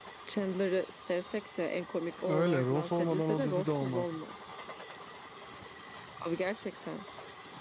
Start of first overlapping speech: 2.2 s

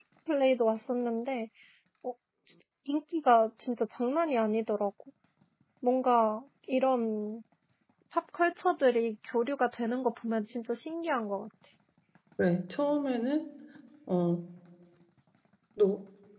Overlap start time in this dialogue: none

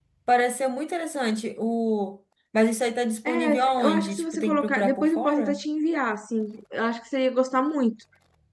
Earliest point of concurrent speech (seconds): 3.2 s

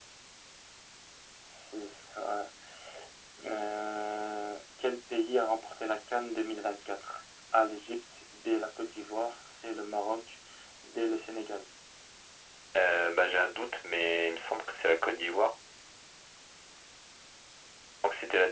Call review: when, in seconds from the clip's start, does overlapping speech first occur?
none

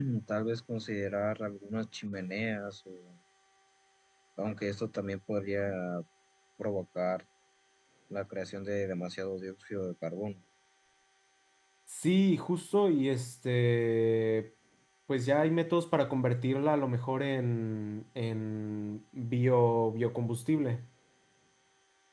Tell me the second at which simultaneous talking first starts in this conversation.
none

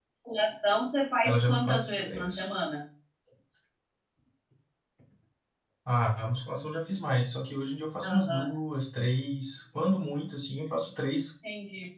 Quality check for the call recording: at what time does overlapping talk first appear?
1.2 s

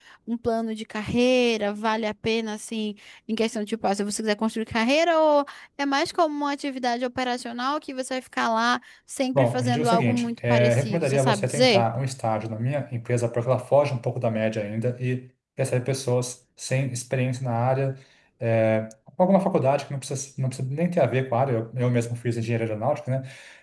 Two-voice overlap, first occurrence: 9.3 s

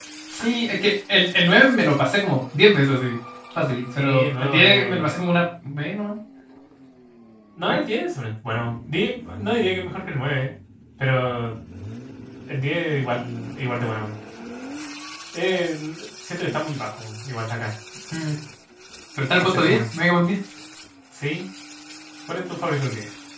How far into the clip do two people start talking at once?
4.0 s

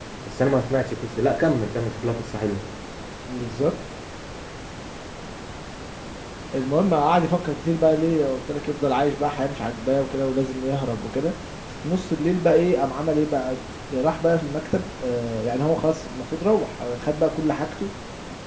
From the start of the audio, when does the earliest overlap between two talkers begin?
none

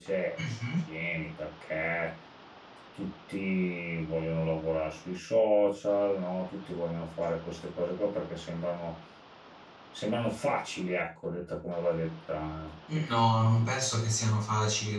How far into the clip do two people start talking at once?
none

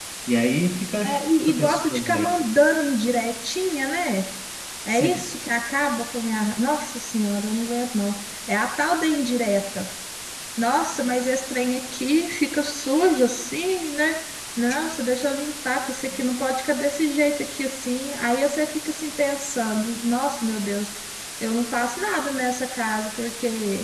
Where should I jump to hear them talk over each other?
1.0 s

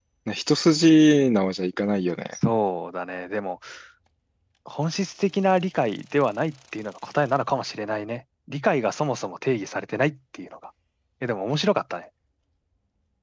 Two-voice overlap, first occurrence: none

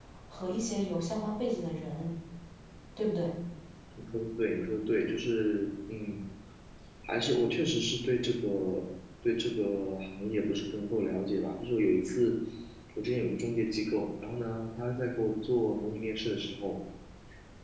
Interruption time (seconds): none

